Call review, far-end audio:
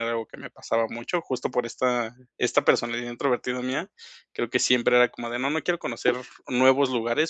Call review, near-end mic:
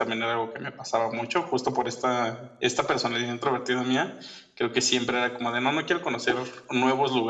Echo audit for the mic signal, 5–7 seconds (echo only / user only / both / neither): echo only